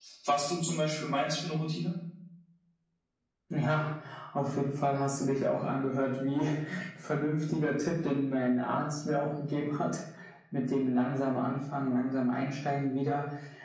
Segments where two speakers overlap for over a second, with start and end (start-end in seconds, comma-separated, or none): none